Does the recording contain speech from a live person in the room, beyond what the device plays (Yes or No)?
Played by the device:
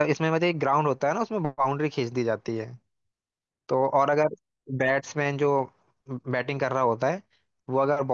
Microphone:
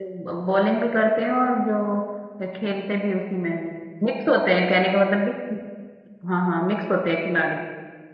Yes